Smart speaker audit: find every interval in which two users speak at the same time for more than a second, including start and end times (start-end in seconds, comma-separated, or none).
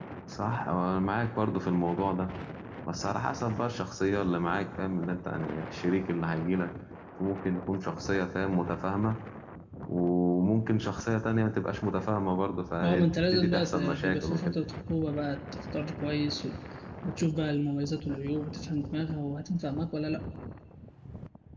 12.8-14.6